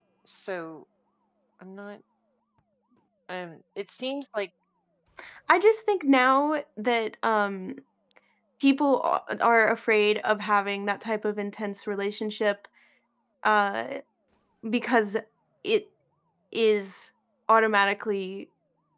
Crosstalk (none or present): none